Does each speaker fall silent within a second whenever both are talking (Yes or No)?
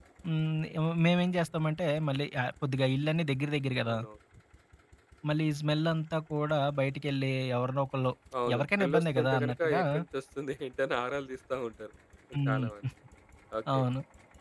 No